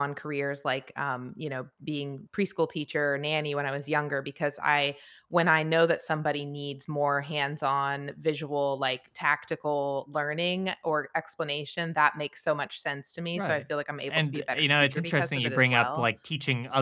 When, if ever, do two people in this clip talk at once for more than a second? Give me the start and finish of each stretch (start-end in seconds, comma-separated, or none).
14.1-16.1